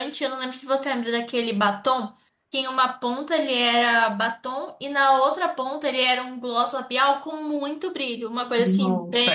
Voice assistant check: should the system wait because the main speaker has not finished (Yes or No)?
No